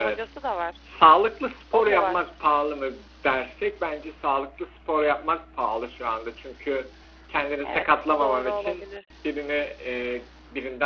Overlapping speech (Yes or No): Yes